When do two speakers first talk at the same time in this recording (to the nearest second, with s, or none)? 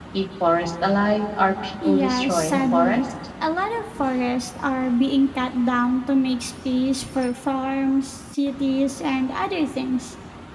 2 s